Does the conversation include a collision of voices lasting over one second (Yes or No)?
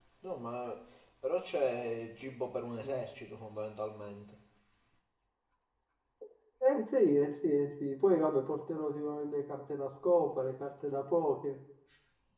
No